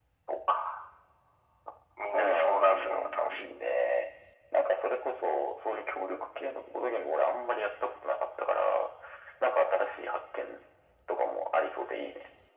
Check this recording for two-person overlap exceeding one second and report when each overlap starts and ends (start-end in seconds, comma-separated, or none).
2.1-3.4